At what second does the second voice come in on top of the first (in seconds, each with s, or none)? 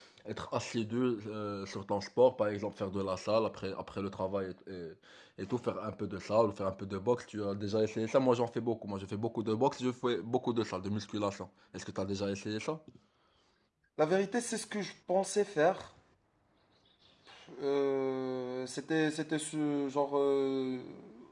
none